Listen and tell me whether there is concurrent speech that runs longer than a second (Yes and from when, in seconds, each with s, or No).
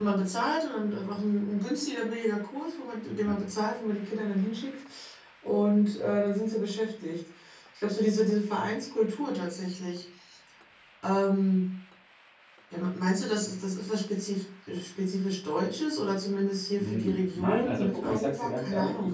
Yes, from 16.8 s